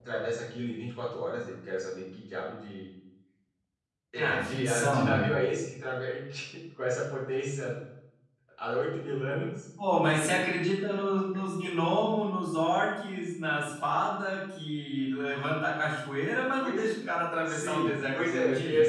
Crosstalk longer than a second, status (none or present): present